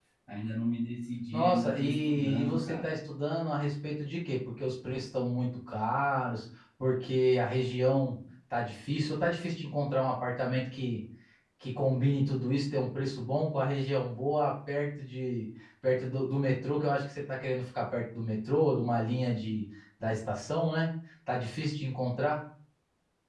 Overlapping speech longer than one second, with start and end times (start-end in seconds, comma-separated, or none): 1.3-3.0